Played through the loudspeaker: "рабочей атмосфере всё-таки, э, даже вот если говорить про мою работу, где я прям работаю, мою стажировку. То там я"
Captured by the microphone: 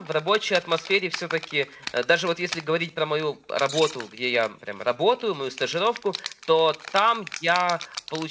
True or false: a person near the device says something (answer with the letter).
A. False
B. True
A